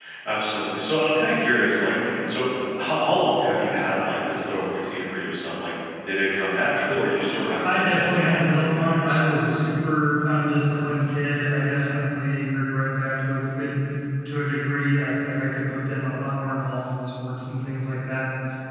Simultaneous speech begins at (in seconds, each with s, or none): 7.6 s